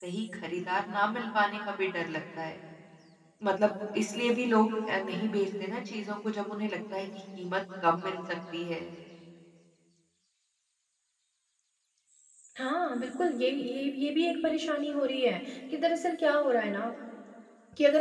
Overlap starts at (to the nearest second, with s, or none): none